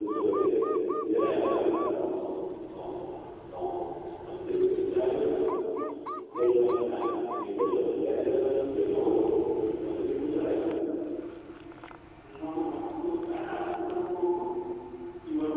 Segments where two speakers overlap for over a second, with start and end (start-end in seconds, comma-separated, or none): none